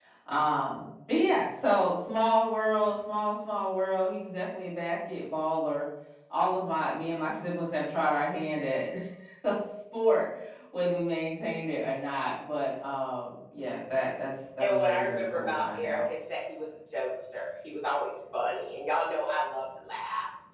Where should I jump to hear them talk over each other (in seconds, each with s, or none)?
14.6 s